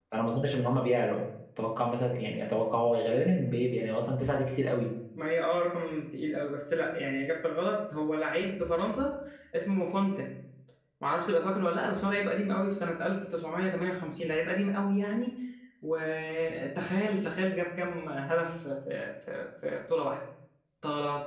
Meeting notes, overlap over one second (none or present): none